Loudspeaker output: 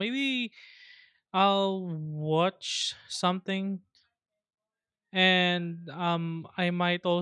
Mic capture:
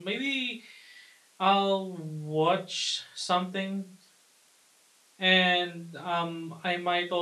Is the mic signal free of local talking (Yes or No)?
Yes